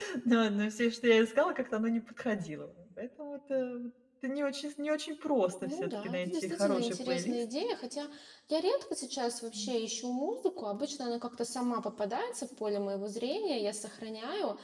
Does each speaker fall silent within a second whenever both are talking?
No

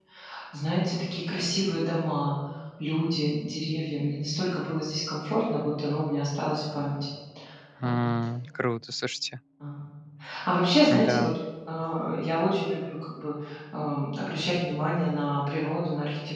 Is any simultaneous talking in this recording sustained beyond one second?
No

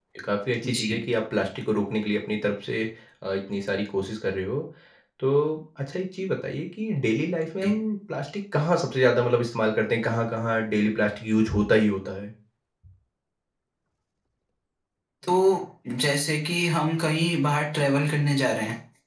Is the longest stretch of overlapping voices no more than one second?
Yes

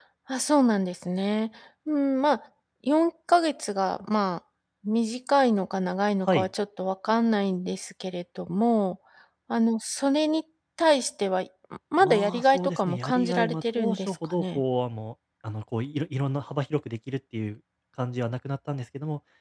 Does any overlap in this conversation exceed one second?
Yes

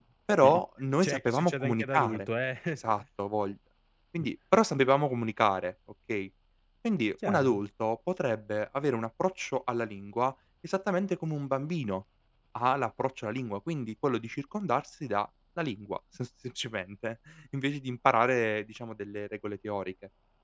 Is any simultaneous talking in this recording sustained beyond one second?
Yes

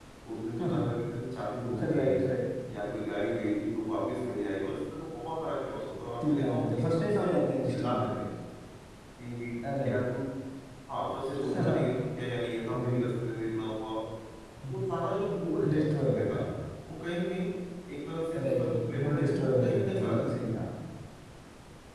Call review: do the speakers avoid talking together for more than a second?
No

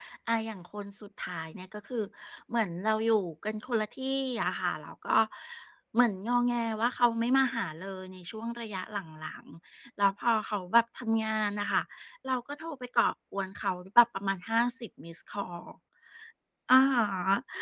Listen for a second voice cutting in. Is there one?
No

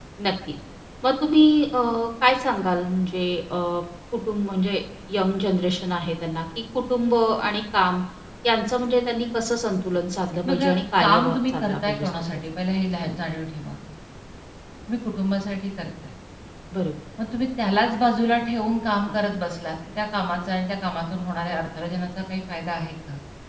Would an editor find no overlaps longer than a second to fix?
No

